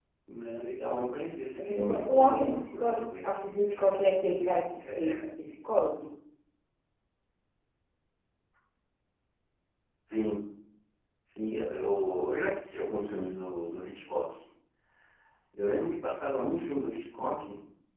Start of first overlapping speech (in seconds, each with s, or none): 1.6 s